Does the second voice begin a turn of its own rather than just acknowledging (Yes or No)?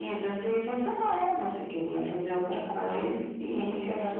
Yes